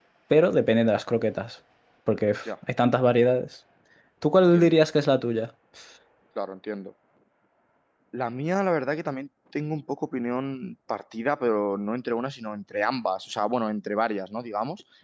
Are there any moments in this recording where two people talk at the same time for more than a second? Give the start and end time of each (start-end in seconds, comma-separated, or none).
none